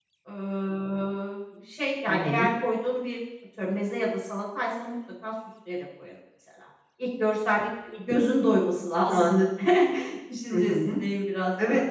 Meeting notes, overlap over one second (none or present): none